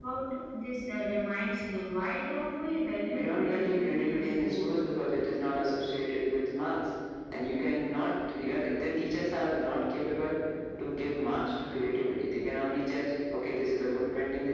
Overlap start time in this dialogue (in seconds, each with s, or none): 3.1 s